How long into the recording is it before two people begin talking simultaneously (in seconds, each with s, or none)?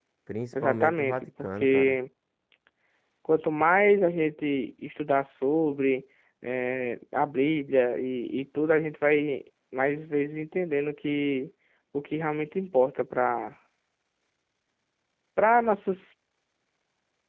0.6 s